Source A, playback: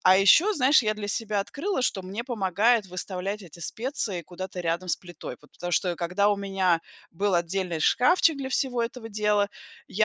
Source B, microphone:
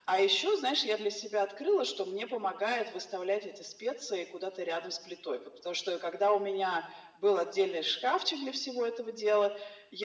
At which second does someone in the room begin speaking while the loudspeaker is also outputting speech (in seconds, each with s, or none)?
none